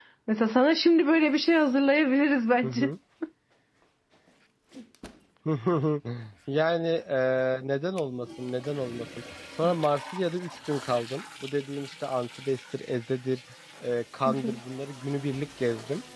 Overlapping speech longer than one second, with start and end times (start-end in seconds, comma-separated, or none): none